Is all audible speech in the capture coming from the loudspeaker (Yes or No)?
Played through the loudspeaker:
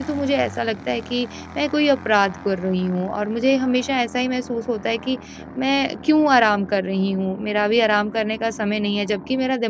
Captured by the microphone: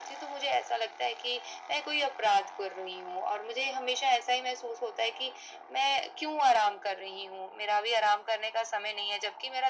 Yes